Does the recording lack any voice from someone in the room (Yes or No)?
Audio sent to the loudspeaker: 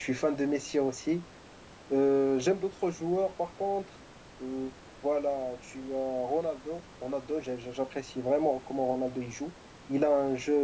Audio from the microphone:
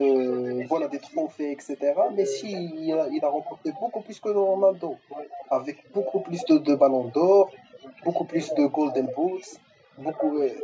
No